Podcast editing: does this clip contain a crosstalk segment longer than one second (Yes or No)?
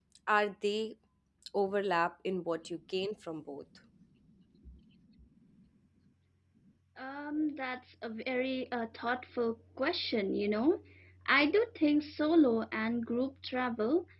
No